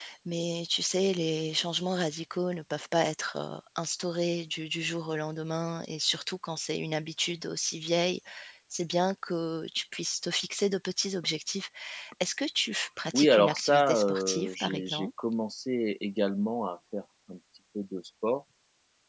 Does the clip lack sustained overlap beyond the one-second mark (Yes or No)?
No